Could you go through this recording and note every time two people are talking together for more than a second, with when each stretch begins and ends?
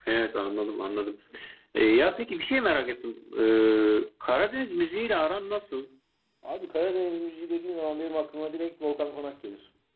none

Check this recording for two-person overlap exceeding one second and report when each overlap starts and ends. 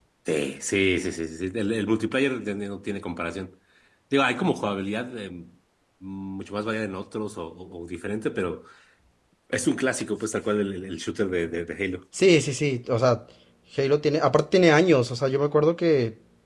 none

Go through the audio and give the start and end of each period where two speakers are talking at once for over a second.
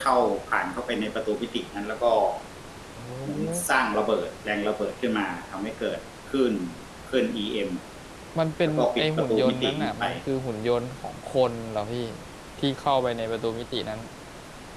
8.6-10.0

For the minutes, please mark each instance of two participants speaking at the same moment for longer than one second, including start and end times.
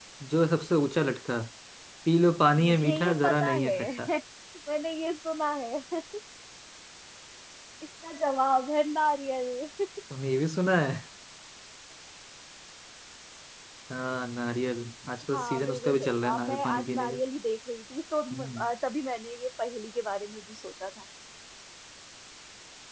2.6-3.9, 15.3-17.2

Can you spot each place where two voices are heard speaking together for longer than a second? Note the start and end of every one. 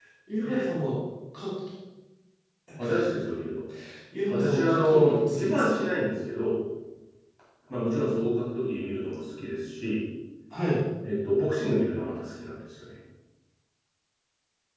4.3-5.9

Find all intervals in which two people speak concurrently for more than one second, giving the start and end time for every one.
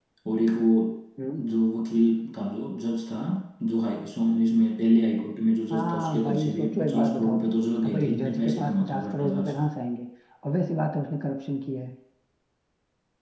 5.7-7.5, 7.8-9.7

